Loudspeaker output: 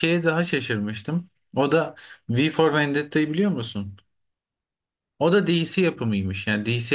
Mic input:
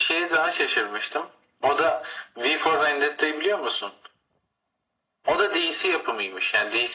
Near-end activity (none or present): none